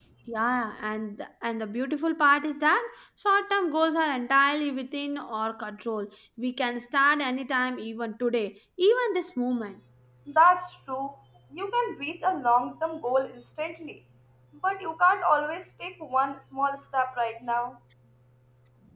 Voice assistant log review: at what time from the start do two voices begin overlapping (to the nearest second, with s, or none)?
none